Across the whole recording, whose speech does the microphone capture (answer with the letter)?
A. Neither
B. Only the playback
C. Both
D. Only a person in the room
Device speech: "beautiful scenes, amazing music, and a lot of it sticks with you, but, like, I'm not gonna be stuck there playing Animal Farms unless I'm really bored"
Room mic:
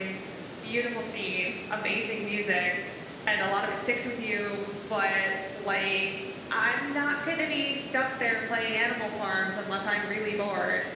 B